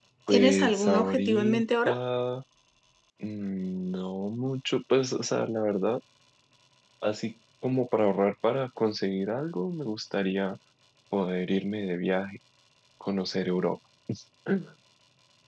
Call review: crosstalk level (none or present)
present